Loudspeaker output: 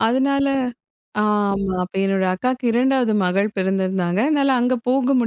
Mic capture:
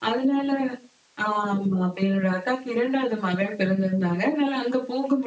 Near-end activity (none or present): none